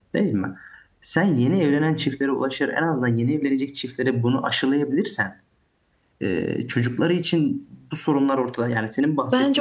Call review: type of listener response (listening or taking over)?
taking over